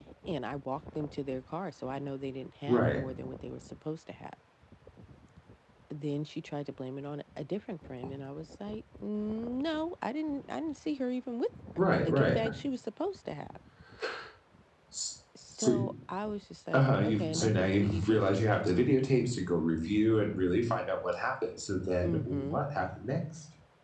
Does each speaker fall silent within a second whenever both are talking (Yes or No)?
No